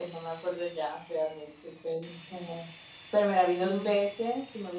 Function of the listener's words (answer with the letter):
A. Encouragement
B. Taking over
A